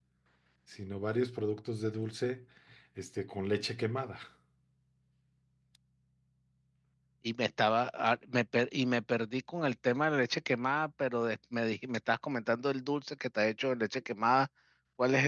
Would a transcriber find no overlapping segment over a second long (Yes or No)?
Yes